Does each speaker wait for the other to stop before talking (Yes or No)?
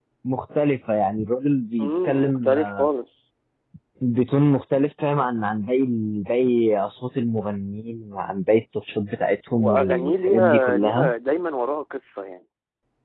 No